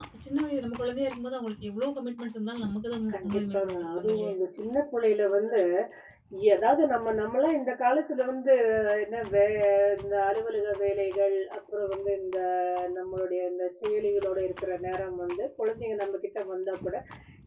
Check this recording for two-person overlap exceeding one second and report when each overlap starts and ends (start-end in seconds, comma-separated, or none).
3.1-4.3